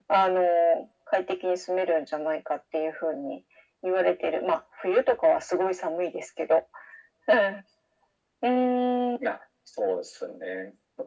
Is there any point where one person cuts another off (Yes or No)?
No